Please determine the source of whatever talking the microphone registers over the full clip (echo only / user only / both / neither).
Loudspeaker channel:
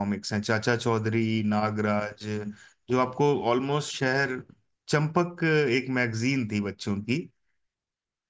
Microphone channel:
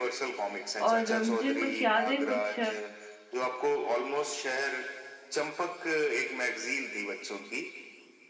both